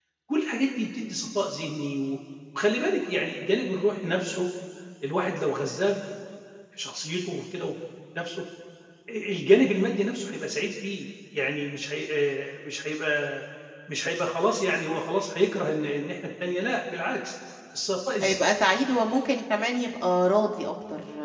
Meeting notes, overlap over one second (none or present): none